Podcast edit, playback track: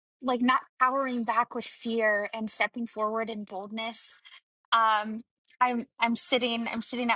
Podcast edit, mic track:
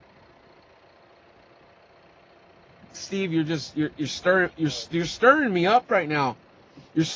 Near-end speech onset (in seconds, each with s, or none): 2.9 s